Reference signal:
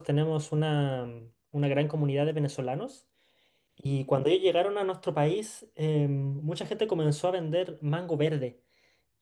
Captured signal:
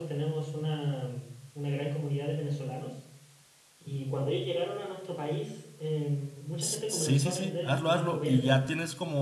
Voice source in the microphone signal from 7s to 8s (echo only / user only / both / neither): both